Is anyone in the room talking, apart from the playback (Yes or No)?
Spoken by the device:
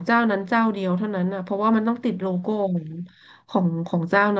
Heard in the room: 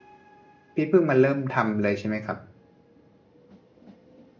Yes